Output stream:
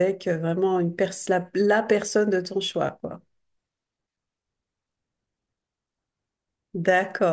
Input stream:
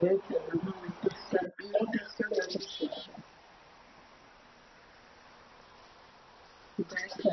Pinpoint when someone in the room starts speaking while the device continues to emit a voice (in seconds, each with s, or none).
none